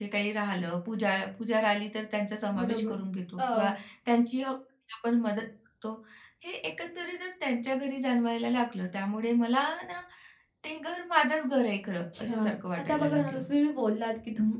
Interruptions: present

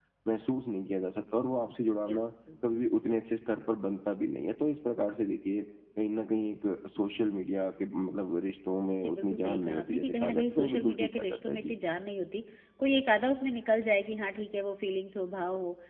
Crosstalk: present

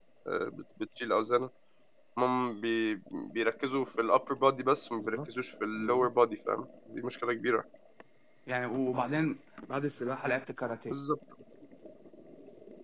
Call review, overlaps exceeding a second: none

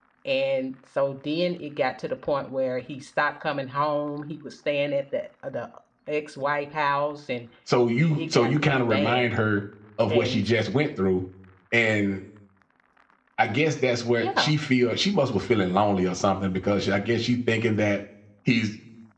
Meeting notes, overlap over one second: present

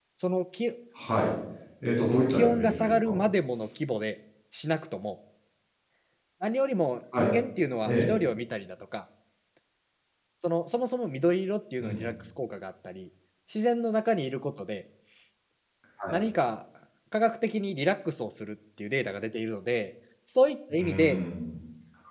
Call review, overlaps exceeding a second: present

